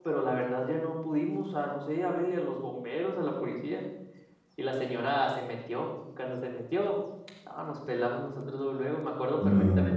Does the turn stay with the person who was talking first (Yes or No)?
Yes